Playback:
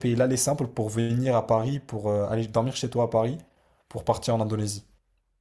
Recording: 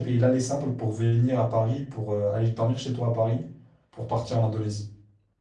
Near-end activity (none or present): none